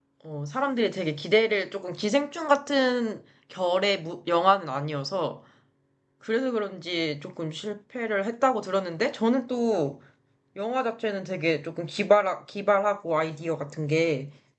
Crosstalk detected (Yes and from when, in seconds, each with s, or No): No